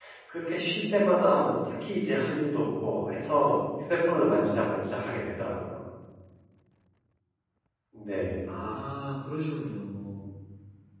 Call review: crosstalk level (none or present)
none